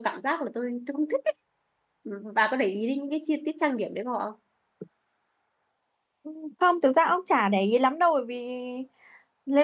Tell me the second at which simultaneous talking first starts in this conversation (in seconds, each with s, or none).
none